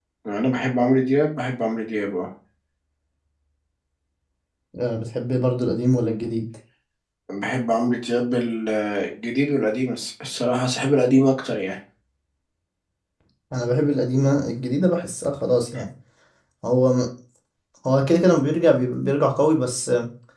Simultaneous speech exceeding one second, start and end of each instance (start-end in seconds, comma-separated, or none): none